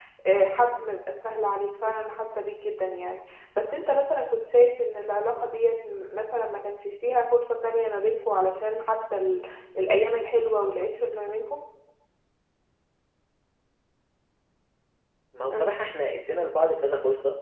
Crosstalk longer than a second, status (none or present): none